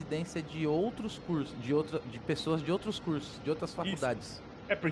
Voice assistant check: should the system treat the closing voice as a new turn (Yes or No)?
Yes